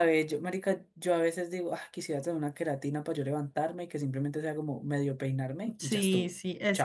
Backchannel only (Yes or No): No